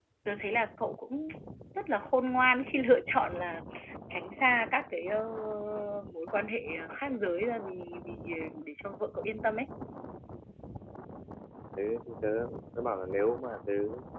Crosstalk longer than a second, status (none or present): none